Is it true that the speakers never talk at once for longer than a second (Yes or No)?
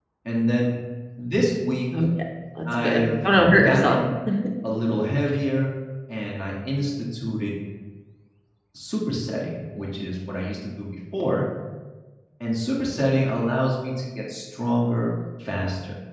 Yes